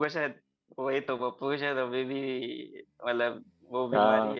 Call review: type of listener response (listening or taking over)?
taking over